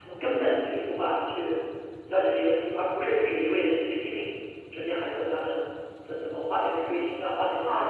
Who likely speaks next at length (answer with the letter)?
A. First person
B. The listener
B